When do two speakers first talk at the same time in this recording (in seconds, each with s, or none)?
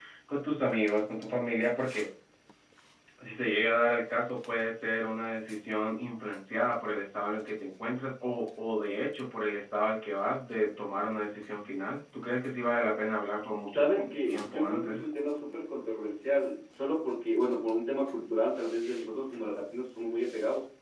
13.7 s